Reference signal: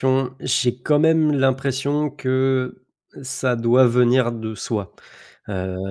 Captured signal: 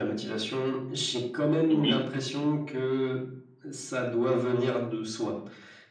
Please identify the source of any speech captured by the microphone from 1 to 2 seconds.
both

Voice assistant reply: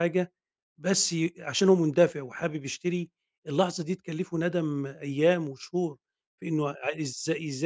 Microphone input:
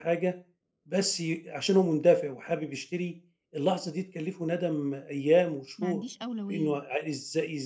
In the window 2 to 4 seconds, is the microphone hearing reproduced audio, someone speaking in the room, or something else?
echo only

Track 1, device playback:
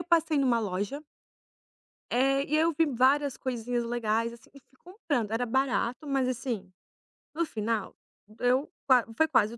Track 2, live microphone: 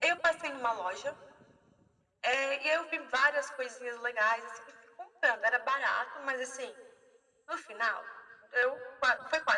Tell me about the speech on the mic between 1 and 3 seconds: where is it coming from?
echo only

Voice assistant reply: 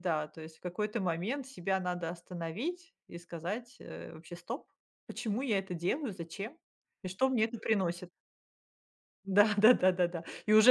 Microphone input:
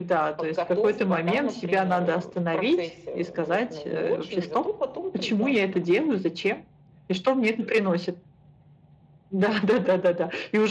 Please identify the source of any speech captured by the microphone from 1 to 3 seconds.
both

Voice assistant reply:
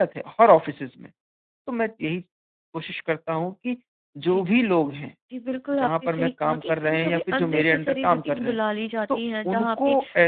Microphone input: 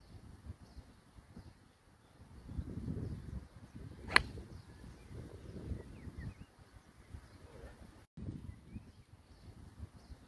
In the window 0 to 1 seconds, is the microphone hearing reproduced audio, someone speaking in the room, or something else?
neither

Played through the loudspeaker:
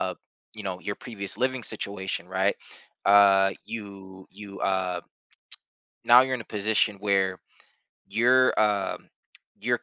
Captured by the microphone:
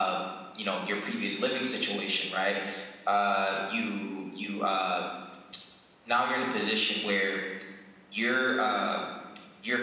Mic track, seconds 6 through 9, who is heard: echo only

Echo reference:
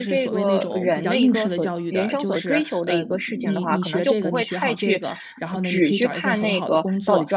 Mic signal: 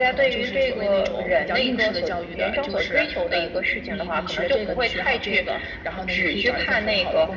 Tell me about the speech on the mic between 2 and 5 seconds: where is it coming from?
echo only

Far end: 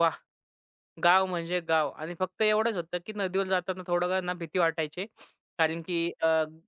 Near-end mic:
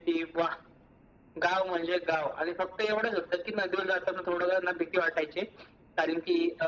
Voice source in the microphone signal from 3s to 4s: echo only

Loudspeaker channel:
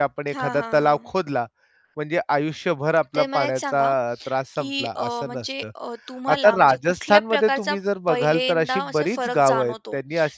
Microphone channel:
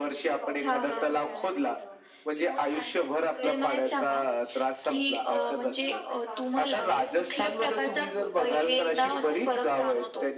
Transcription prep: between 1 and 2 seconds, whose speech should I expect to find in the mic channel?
both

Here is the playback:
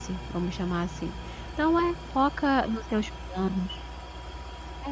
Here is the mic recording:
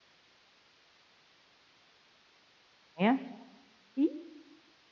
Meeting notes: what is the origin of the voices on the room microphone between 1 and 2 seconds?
neither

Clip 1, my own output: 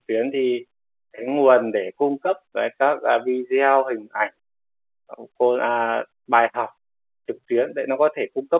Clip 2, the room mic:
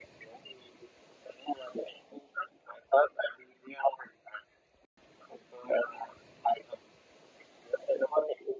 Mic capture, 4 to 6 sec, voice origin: echo only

